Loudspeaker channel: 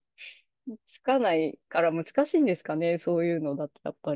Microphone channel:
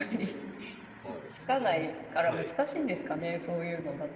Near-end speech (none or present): present